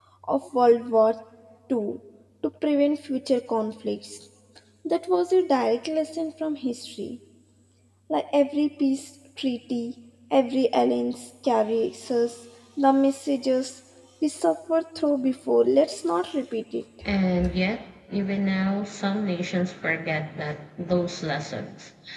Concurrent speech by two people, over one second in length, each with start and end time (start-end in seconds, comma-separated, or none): none